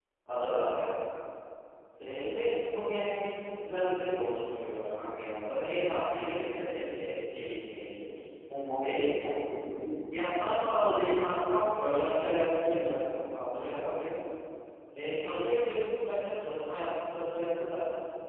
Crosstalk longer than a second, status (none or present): present